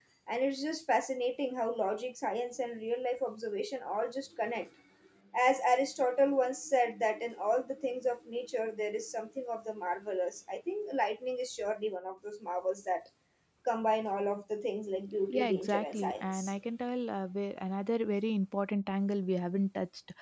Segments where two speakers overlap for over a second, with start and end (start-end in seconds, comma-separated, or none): 15.3-16.5